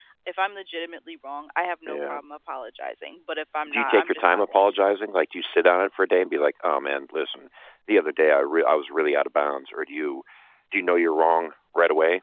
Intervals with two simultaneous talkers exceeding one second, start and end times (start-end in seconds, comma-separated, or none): 3.7-4.9